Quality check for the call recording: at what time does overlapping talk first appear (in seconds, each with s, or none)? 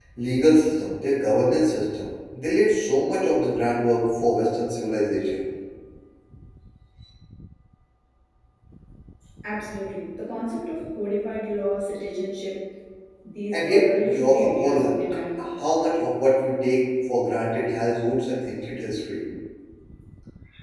13.5 s